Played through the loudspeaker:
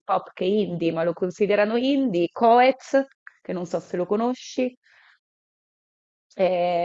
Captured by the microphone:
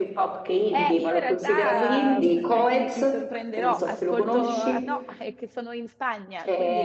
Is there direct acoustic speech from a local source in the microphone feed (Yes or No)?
Yes